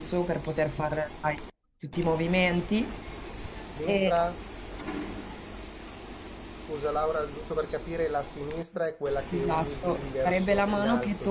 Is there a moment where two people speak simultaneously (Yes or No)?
Yes